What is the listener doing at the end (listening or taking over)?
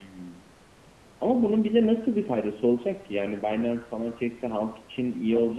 taking over